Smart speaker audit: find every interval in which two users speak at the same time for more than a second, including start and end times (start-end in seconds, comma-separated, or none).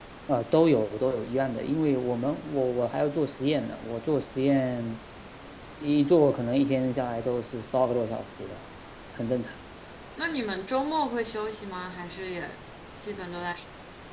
none